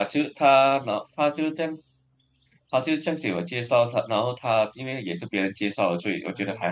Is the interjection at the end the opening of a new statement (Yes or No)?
Yes